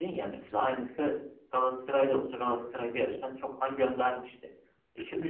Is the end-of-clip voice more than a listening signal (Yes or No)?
No